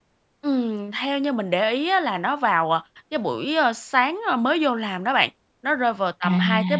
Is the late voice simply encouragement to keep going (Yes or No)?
Yes